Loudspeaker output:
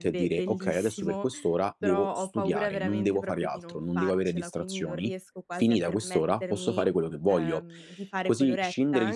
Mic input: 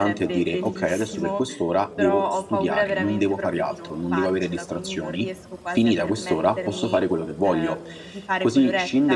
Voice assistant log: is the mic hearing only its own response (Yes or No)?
Yes